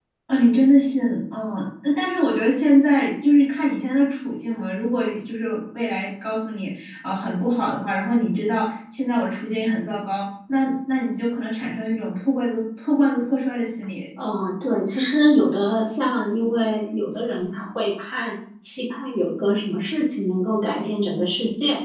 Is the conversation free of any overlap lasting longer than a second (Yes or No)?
Yes